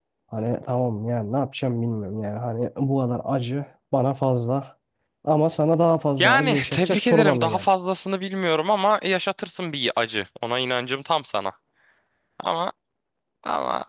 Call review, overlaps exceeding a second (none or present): present